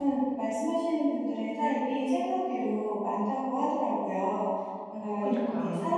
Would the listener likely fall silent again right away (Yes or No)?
Yes